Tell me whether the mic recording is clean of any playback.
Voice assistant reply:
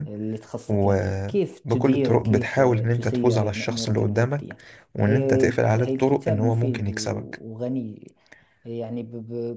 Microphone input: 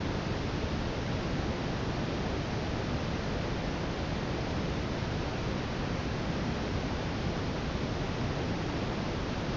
Yes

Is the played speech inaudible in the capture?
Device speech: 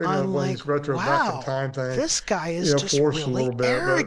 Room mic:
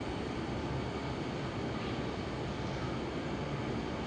Yes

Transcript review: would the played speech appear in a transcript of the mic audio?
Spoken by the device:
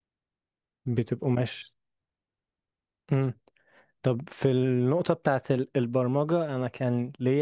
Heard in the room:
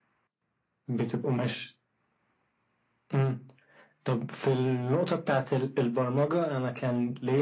Yes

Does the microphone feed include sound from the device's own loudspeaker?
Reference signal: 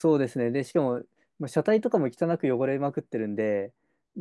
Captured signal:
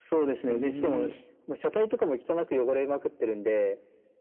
Yes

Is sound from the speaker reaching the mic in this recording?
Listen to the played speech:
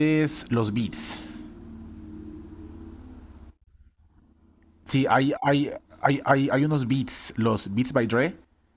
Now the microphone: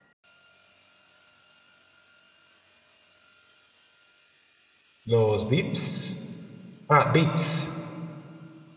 No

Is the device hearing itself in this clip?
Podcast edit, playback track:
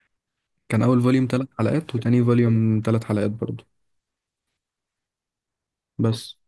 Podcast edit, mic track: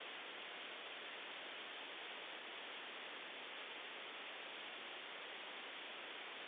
No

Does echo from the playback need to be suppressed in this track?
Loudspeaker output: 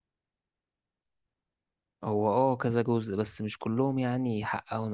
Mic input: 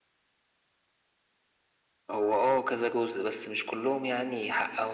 Yes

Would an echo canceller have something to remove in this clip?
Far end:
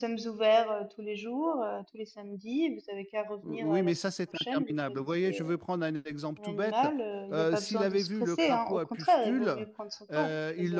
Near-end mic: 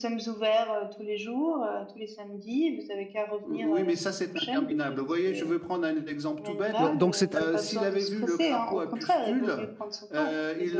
Yes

